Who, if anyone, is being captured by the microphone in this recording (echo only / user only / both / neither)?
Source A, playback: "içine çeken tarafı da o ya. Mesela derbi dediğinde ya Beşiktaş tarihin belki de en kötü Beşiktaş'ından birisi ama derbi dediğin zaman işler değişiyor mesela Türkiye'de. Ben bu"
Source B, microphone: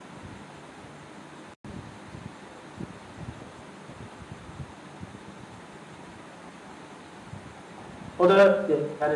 user only